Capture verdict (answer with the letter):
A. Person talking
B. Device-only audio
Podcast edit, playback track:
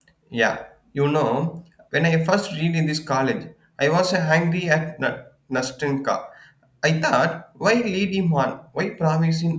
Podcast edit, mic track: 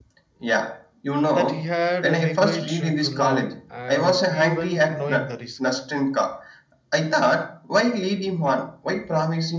A